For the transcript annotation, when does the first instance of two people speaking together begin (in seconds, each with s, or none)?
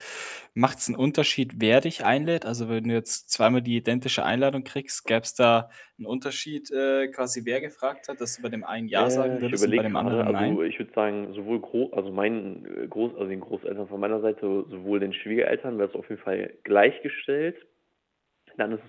8.9 s